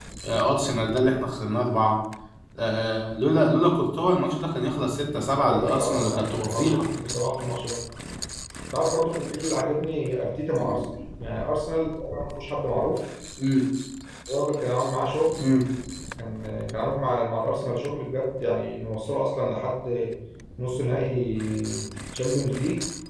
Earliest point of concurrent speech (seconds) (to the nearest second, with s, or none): 5 s